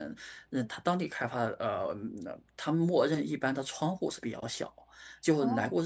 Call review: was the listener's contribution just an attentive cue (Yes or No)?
Yes